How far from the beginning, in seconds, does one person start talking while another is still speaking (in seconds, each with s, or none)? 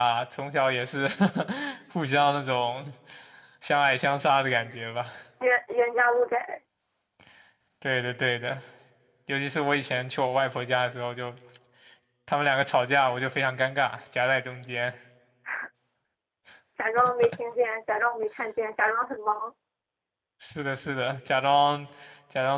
none